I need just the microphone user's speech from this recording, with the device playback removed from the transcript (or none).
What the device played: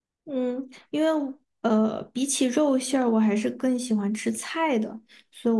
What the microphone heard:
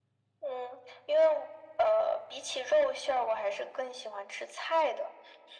none